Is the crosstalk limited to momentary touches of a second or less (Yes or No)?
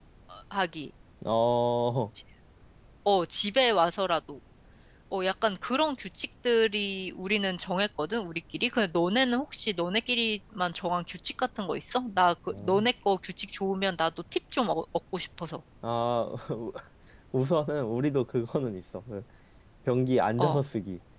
Yes